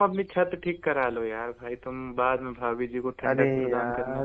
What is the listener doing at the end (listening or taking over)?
taking over